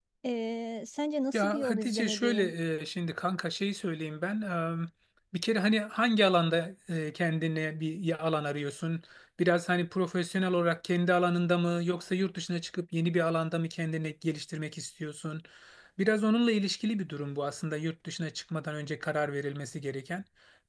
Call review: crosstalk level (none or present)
present